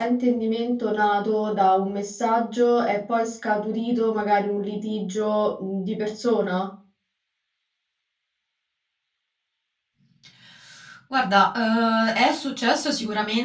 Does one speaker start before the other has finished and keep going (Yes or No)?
No